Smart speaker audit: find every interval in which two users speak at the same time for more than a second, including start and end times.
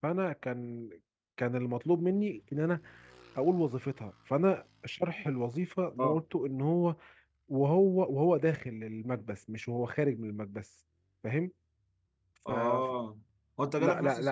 none

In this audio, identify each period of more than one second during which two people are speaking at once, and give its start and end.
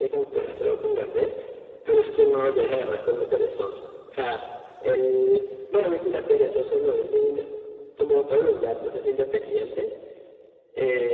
none

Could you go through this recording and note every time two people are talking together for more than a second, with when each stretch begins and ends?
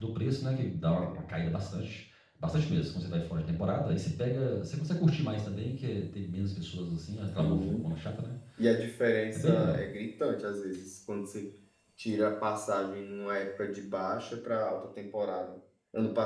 none

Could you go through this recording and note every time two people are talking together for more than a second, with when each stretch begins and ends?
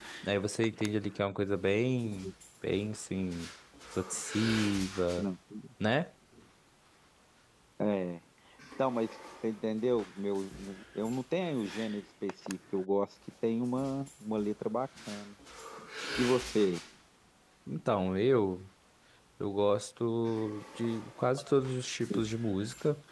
none

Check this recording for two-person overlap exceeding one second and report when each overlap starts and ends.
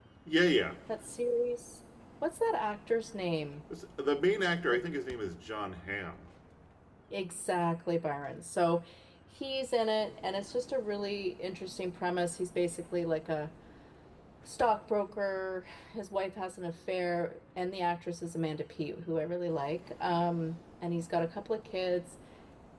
none

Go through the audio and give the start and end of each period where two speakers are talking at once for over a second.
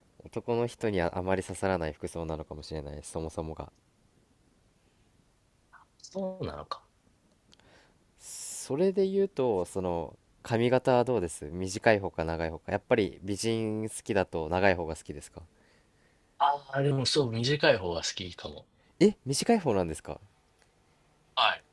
none

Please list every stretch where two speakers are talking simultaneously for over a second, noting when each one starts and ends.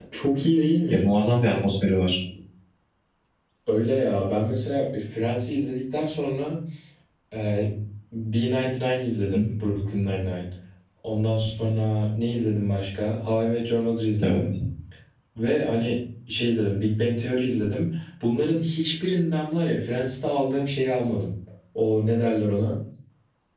none

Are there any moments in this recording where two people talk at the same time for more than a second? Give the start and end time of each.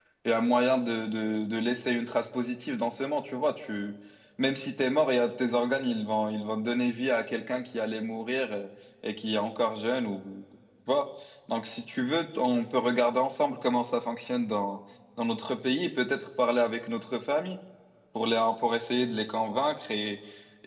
none

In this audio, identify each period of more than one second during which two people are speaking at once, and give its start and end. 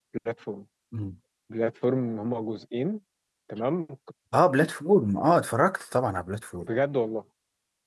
none

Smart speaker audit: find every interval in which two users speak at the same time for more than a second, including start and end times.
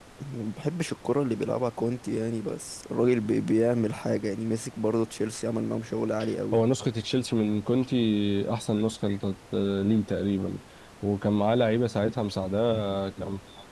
none

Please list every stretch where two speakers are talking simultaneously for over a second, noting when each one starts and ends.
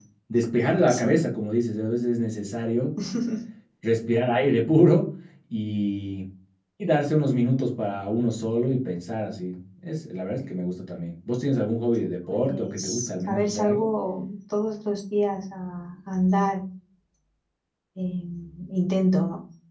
12.3-13.9

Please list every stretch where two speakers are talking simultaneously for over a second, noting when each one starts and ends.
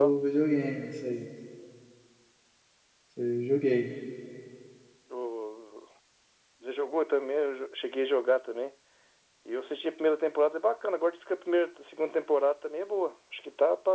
none

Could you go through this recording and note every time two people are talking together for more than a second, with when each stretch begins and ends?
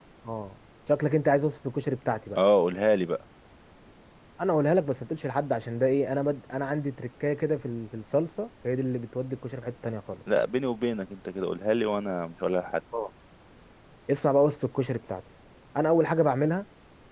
none

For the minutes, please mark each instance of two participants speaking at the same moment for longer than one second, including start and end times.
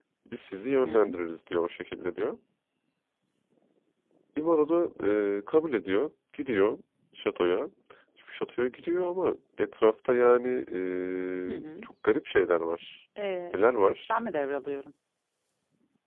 none

